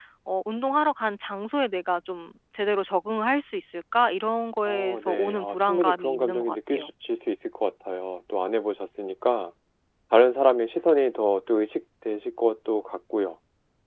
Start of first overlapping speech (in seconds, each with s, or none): 4.7 s